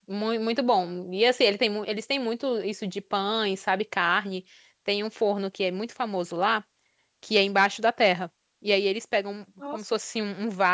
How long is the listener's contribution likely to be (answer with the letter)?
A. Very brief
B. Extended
A